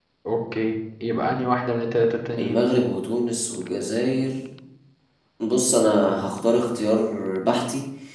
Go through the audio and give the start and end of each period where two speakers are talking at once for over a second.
none

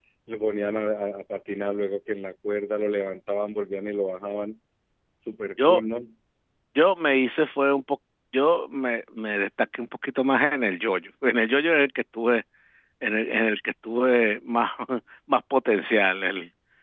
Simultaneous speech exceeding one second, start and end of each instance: none

